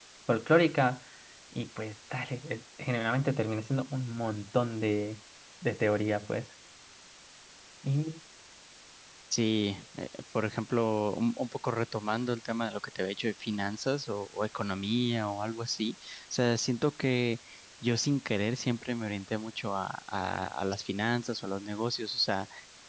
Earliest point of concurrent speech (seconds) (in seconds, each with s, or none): none